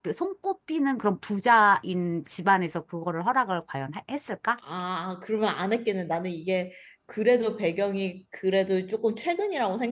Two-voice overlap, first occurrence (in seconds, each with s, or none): none